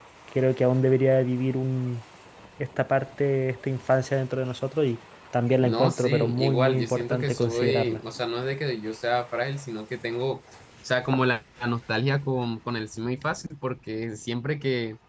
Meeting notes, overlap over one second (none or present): present